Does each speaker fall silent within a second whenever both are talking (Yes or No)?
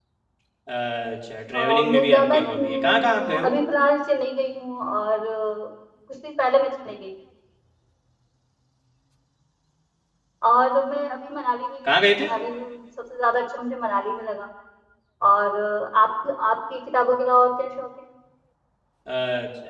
No